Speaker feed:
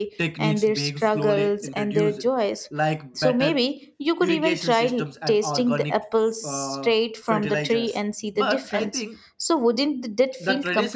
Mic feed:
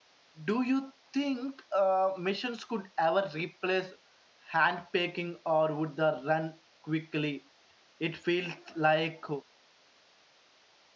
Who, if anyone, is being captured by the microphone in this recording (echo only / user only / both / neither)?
user only